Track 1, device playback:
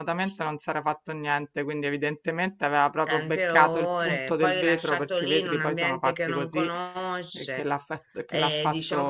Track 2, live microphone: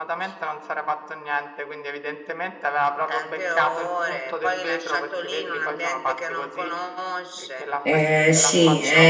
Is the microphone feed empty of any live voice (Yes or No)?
No